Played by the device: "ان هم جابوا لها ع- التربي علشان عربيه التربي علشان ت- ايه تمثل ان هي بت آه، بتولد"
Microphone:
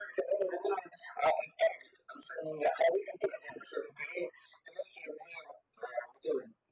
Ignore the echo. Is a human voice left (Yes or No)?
No